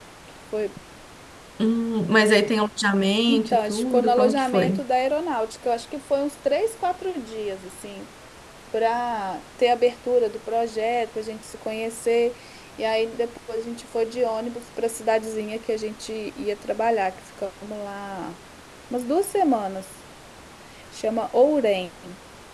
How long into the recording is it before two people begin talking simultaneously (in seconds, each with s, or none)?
3.3 s